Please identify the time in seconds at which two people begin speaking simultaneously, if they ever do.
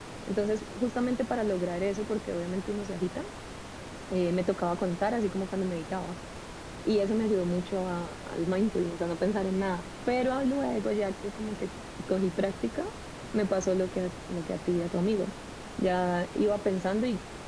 none

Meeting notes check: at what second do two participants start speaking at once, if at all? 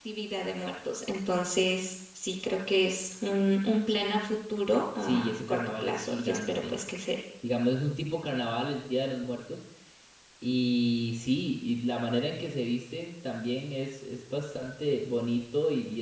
5.0 s

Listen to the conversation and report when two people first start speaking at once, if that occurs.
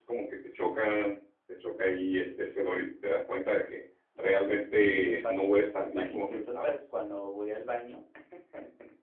4.7 s

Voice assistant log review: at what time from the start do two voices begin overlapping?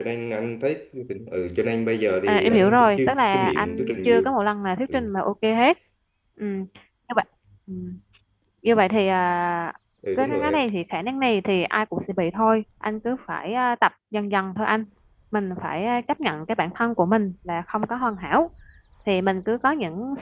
2.3 s

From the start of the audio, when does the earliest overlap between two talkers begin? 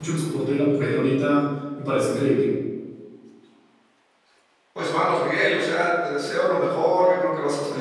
none

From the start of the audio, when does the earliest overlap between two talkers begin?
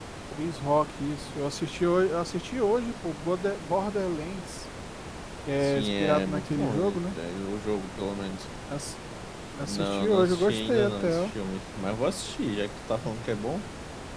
5.6 s

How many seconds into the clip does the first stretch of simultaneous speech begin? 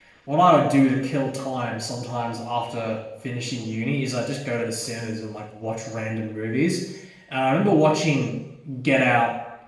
none

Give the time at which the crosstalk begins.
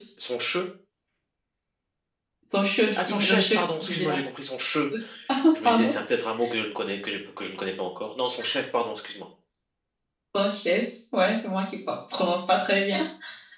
3.0 s

